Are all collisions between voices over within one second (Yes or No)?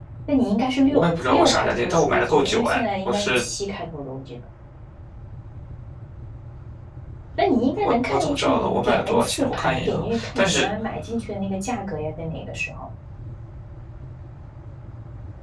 No